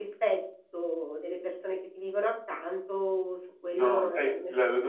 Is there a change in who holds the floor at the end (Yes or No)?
Yes